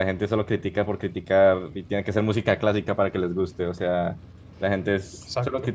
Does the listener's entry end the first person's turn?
No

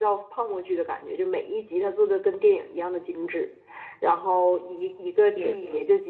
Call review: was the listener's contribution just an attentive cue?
Yes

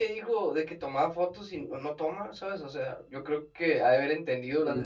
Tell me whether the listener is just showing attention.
No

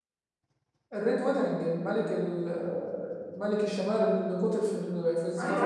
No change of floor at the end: No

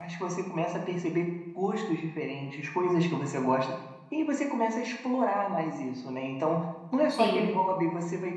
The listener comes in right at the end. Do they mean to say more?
No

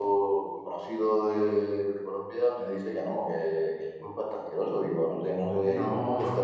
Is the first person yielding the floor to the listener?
No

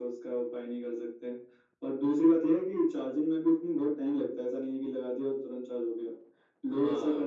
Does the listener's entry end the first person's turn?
No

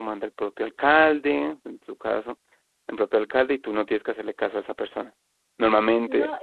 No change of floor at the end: No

